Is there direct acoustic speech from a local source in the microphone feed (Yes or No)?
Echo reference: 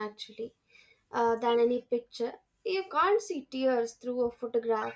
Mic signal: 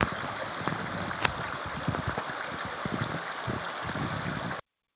No